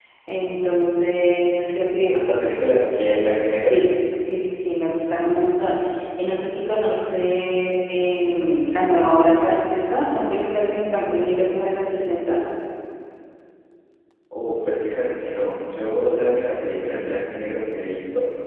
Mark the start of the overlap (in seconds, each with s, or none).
none